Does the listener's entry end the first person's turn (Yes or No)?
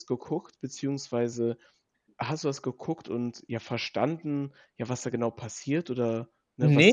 Yes